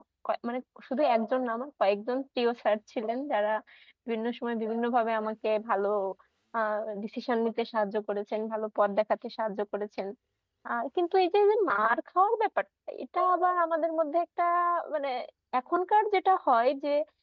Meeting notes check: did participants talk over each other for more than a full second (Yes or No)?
No